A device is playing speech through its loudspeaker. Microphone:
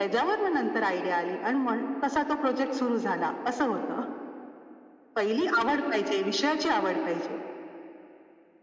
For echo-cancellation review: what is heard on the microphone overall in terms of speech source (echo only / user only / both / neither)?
echo only